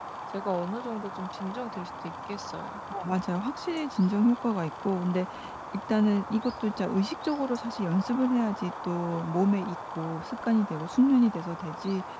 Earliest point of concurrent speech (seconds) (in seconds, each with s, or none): none